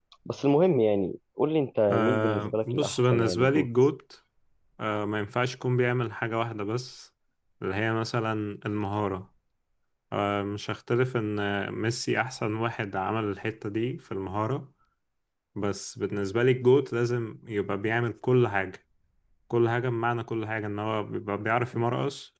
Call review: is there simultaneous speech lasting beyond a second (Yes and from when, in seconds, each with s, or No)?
Yes, from 1.9 s